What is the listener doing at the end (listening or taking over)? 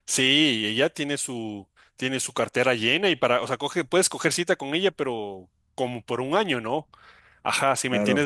listening